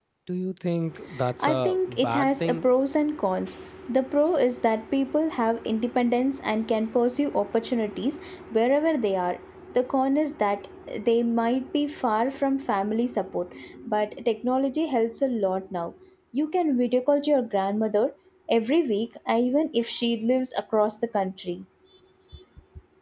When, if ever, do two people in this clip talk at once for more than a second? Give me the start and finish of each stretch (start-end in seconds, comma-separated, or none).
1.4-2.7